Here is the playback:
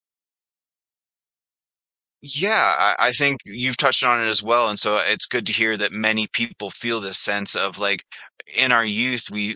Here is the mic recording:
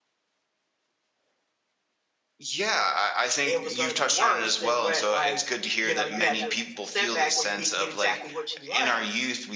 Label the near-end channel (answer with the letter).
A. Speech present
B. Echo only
A